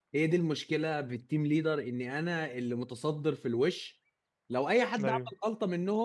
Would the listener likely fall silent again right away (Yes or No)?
Yes